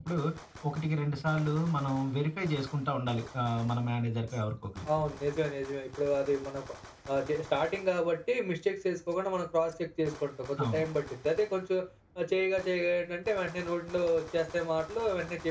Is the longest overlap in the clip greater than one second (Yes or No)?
No